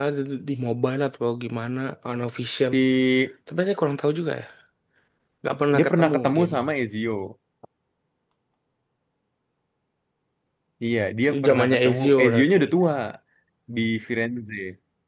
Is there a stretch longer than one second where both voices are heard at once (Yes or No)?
Yes